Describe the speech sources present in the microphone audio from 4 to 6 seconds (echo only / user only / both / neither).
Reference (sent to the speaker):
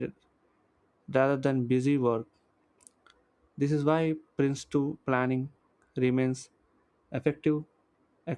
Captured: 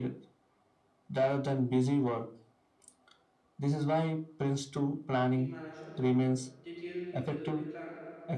both